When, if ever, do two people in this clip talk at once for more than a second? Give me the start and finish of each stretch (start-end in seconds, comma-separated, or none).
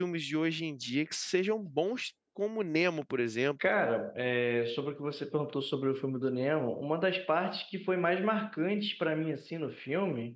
none